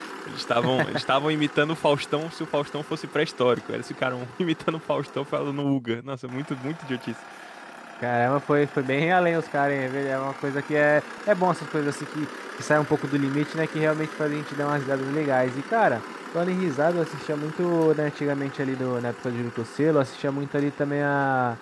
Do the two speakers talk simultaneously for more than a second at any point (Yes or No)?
No